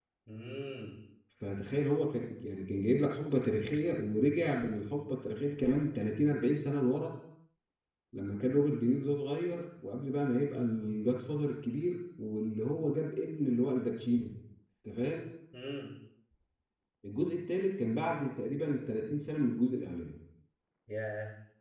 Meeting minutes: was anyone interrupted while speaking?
No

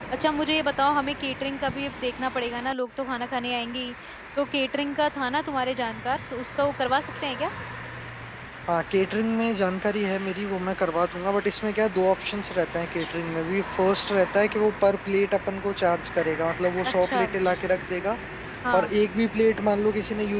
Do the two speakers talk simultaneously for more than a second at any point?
No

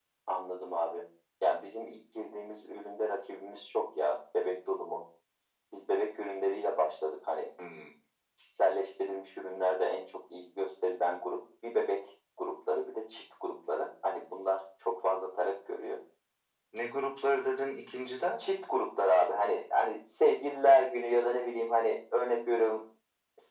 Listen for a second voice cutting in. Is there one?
No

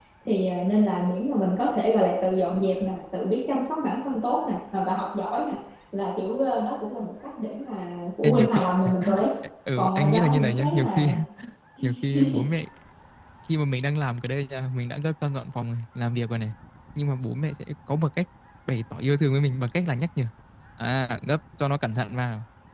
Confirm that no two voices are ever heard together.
No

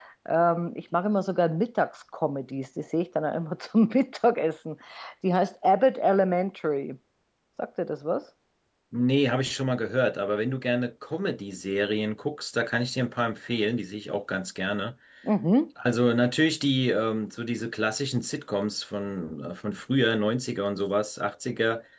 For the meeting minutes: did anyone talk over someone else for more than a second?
No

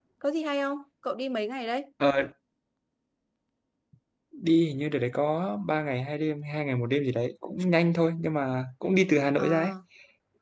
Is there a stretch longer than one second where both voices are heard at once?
No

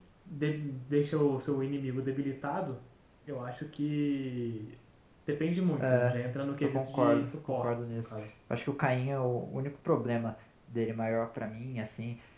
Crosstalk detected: Yes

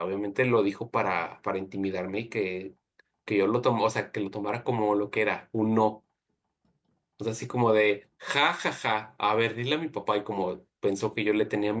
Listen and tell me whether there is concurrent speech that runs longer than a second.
No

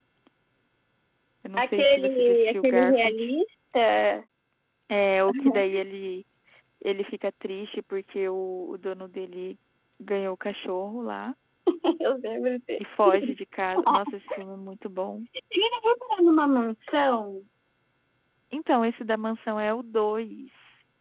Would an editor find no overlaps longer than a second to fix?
No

